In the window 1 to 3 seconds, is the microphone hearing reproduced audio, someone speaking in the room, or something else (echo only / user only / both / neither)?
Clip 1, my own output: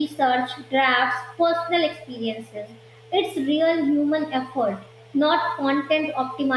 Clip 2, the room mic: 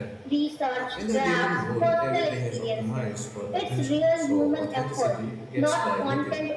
both